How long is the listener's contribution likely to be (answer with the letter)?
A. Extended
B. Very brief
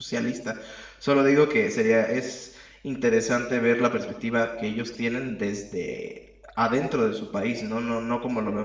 B